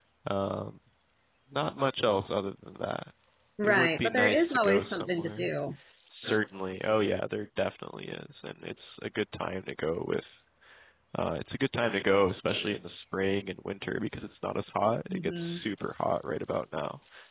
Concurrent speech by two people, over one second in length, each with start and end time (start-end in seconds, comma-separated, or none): 3.6-5.5